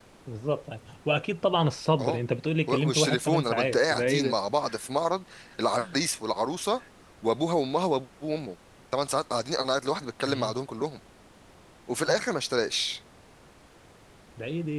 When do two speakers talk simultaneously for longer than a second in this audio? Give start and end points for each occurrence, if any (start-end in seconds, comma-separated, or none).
2.7-4.3